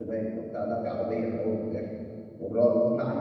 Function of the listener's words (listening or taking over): listening